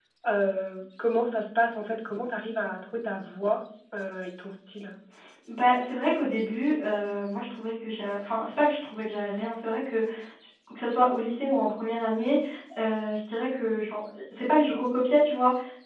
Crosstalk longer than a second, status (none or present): none